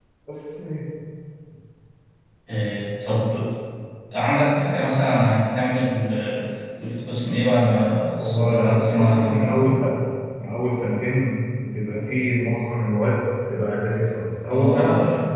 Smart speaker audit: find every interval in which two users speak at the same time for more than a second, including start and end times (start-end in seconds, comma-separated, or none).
8.2-9.7